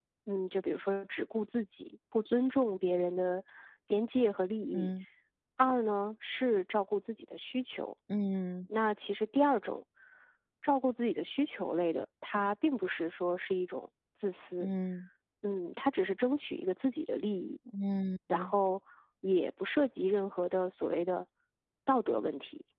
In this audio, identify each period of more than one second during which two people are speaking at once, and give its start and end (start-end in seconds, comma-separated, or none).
none